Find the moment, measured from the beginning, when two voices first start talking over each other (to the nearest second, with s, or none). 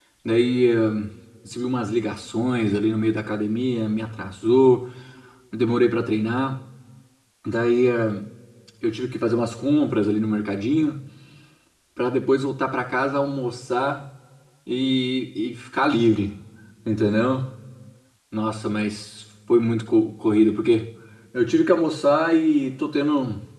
none